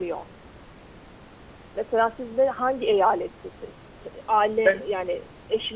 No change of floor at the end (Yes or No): Yes